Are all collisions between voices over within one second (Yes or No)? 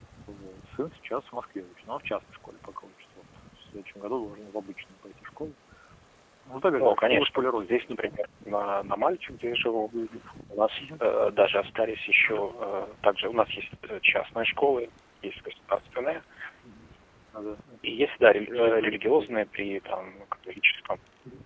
No